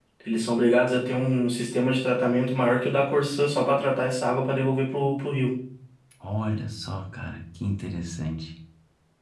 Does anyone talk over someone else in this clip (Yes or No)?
No